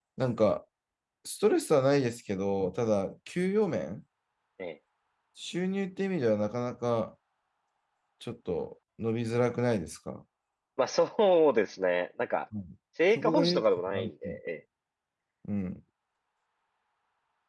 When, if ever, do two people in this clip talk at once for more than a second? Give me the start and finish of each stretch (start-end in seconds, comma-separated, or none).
13.2-14.4